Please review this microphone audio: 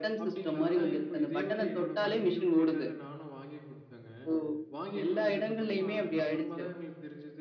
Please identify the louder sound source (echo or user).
echo